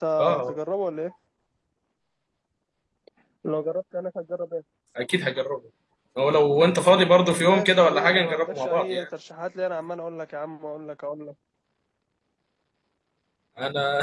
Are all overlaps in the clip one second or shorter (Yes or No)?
No